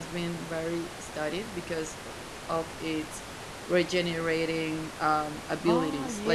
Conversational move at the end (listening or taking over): taking over